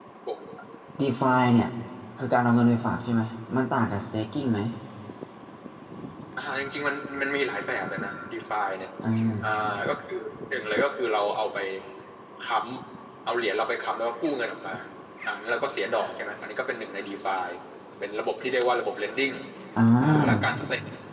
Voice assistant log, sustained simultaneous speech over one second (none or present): none